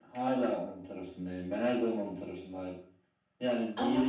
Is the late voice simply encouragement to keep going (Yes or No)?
Yes